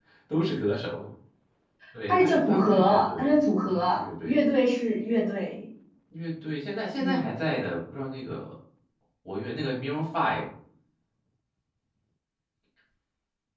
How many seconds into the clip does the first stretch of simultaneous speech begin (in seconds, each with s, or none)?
2.1 s